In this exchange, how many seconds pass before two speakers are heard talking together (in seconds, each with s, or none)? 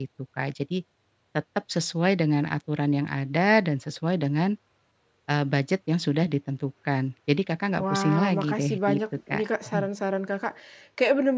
7.7 s